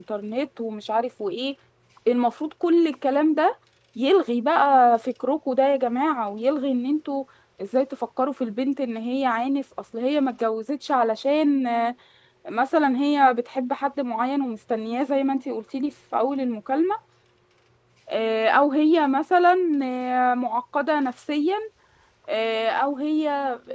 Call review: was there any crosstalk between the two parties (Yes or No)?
No